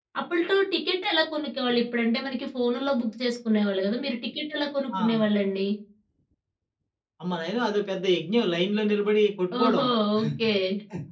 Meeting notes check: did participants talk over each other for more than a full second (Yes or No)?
No